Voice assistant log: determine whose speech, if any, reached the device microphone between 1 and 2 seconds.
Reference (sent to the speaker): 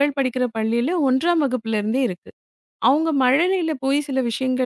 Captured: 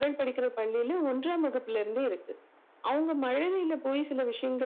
echo only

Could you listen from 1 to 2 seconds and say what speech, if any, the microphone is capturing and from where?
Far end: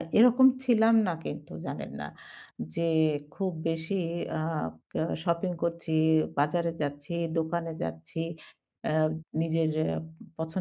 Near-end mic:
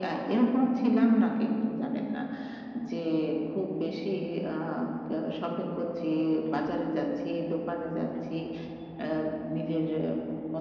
echo only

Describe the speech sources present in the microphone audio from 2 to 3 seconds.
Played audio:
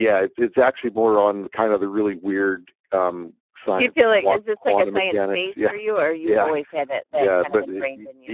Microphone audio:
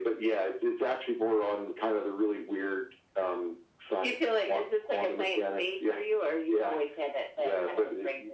echo only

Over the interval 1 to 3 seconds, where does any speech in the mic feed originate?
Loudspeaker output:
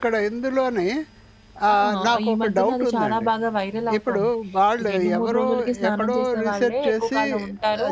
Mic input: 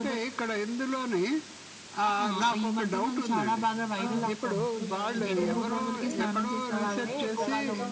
echo only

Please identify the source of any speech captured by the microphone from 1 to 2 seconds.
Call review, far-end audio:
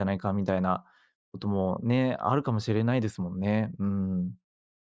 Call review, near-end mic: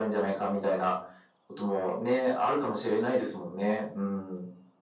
echo only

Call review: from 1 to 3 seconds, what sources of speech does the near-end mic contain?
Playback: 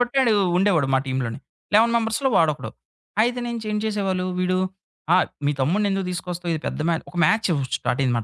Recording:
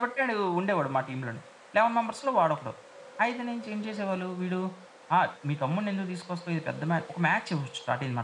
echo only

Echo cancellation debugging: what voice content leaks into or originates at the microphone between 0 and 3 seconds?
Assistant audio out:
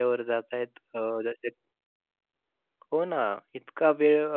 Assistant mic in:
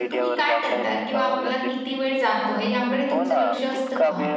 both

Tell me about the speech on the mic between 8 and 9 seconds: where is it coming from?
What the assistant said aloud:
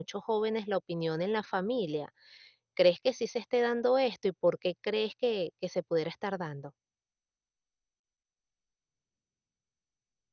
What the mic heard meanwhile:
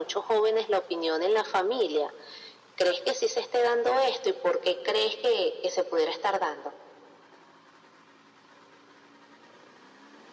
neither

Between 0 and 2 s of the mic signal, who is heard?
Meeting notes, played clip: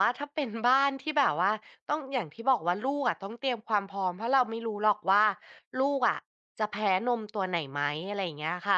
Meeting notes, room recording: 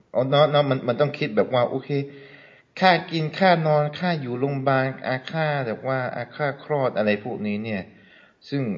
user only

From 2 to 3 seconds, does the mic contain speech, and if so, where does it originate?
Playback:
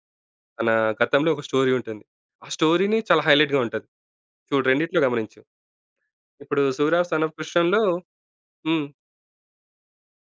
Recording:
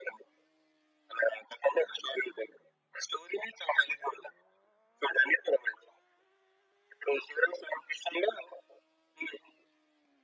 echo only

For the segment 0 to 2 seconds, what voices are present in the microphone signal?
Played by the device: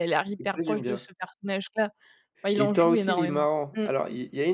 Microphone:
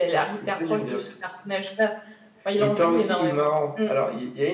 echo only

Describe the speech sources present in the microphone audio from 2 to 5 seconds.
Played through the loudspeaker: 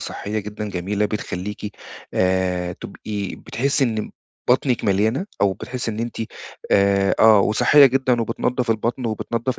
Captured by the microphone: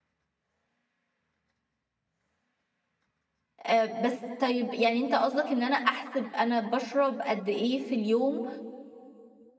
user only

